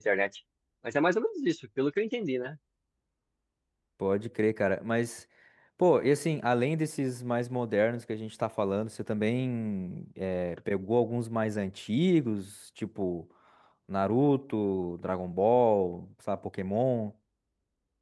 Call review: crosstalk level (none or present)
none